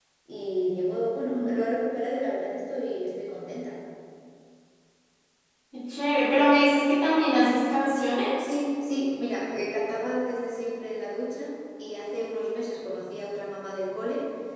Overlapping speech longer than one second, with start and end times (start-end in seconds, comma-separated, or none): none